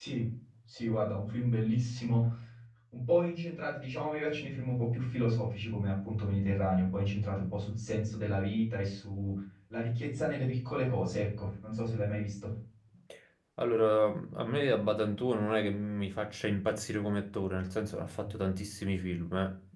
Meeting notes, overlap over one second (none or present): none